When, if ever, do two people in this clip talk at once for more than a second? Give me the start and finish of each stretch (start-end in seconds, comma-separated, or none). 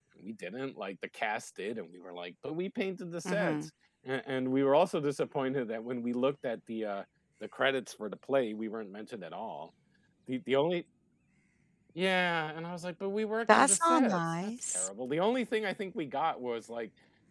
13.5-14.9